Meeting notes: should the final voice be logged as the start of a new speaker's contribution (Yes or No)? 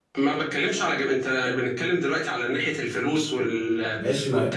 Yes